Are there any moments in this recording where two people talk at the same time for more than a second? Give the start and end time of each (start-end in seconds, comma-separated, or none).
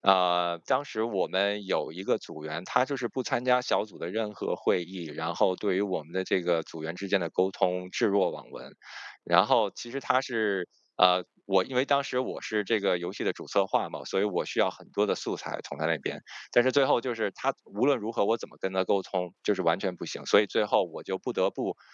none